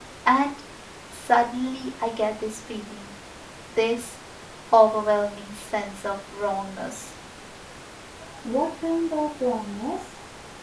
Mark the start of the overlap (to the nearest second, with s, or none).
none